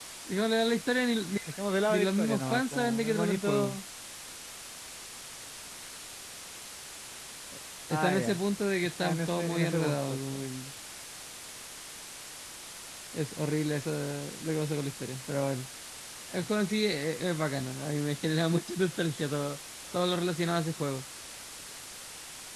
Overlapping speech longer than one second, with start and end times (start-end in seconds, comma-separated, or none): 1.9-3.8, 9.0-10.4